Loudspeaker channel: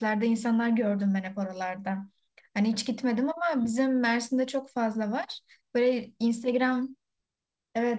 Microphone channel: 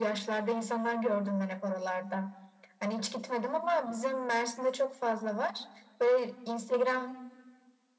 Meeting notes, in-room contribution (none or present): none